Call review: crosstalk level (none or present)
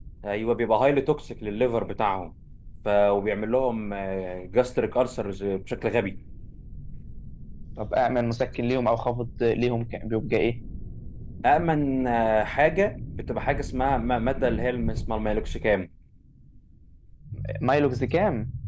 none